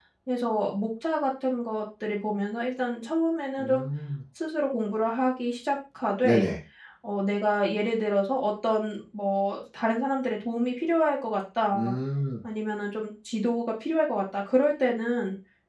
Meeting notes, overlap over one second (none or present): none